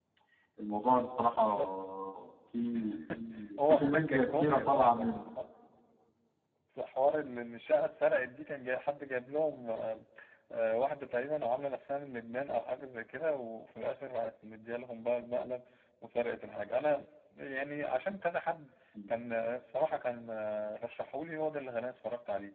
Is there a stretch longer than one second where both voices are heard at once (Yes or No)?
Yes